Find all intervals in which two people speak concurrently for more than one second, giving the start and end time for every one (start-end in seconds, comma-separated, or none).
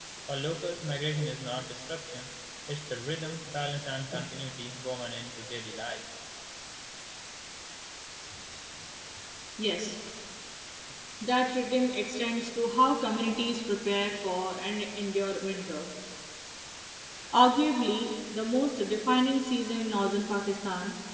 none